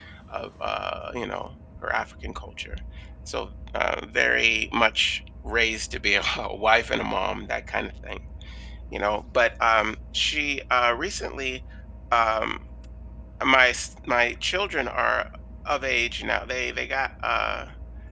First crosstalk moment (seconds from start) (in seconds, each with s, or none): none